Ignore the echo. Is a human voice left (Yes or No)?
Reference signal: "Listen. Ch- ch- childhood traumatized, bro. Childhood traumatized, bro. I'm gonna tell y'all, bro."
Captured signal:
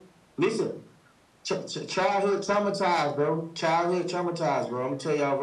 No